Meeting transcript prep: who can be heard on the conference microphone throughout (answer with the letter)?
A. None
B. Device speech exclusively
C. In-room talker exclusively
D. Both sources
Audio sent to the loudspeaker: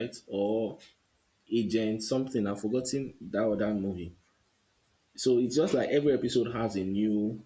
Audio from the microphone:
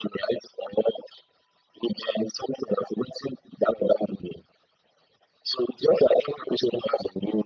B